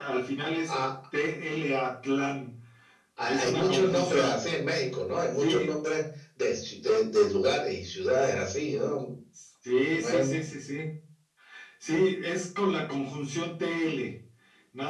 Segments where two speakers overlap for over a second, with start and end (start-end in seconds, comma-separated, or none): 3.2-4.4